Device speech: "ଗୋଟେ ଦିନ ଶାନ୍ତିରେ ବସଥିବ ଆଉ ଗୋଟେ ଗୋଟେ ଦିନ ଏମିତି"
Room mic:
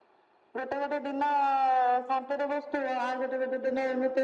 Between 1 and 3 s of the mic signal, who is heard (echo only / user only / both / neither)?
echo only